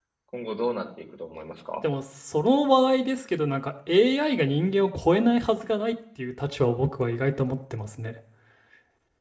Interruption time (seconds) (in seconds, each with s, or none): none